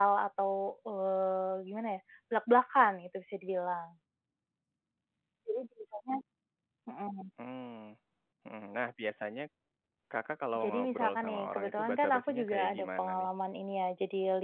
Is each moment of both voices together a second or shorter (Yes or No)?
No